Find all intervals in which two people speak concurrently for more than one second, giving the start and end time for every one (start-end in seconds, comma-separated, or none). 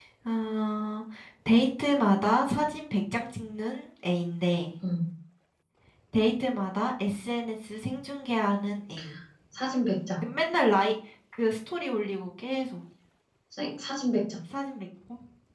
none